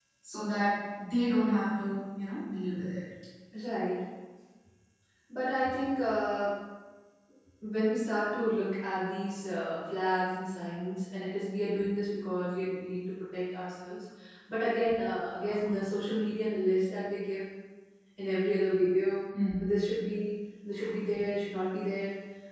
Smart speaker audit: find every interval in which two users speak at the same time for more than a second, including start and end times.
none

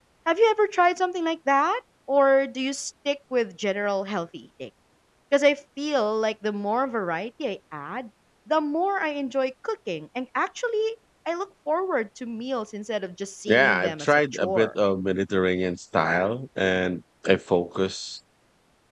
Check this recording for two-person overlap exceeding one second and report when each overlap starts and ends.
13.5-14.7

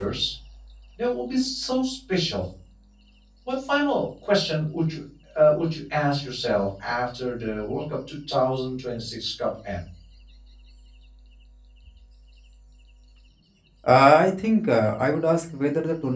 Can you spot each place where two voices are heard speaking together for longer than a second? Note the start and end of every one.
none

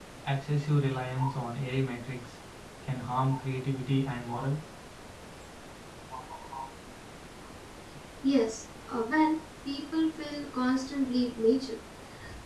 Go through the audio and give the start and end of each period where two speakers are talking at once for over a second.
none

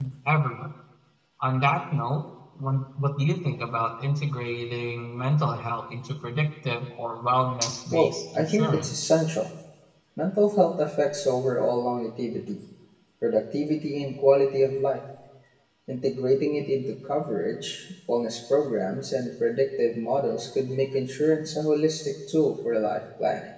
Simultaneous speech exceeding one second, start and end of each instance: 7.9-9.1

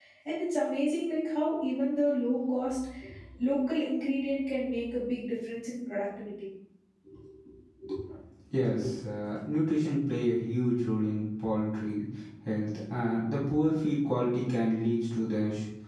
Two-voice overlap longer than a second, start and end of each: none

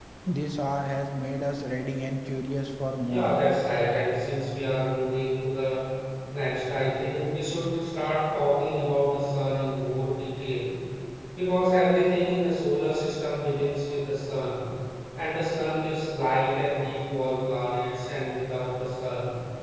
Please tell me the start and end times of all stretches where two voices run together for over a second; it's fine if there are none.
none

